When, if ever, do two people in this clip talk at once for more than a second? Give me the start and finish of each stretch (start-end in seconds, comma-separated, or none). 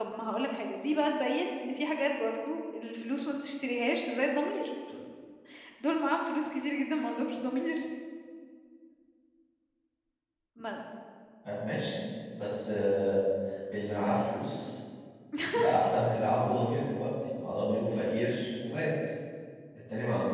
none